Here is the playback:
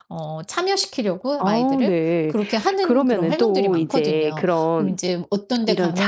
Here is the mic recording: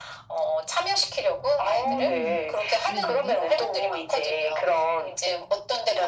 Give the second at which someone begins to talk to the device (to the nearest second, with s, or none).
2 s